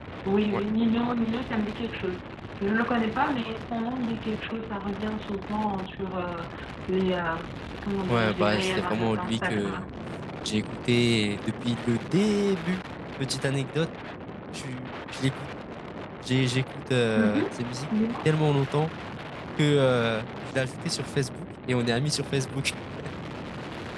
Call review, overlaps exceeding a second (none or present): present